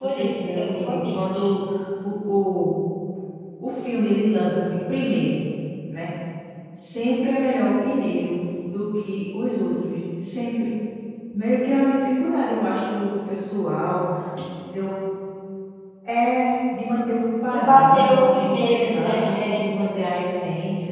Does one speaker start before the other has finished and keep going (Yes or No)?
Yes